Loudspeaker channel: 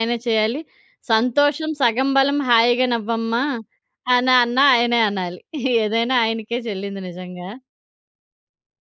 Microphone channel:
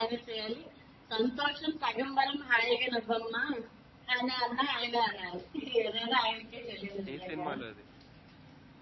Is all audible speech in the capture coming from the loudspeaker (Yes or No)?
No